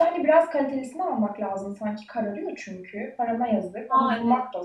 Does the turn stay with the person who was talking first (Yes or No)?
No